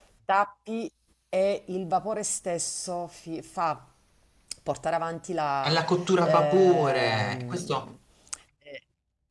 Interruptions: present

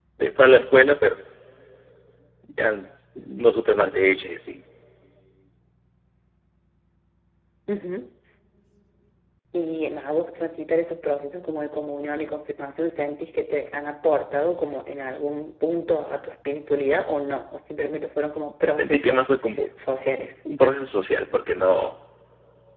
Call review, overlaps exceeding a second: none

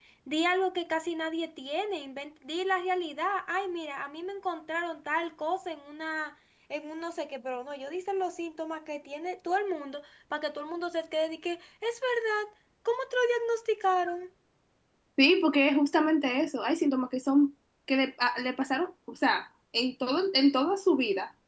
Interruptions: none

